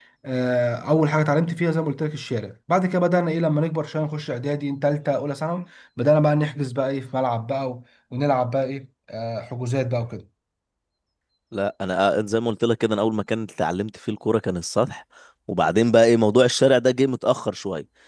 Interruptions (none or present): none